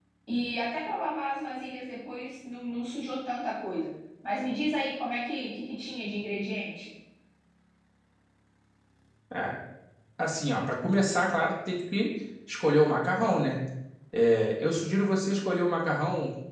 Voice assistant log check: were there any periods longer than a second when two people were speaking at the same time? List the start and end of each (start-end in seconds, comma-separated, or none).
none